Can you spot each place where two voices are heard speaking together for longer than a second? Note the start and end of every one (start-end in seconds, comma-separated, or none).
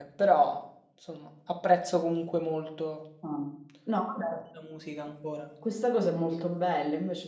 none